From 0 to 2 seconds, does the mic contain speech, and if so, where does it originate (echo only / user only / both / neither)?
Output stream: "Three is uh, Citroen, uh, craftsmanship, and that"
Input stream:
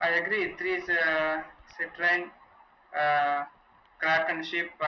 echo only